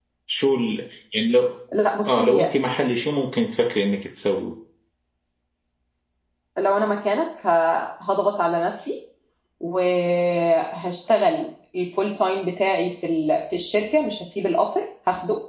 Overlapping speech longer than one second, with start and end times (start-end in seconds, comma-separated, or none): none